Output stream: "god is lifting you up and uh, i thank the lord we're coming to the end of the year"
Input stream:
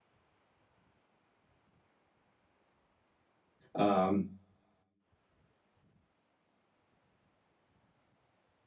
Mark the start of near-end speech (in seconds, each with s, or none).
3.8 s